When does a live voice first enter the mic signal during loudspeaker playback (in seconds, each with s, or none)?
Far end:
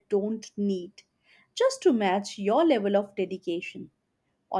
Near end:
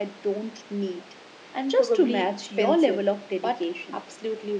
1.5 s